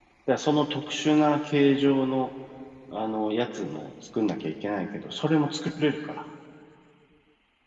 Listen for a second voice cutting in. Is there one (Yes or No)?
No